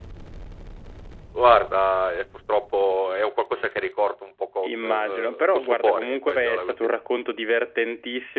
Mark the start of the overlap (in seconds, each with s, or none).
4.6 s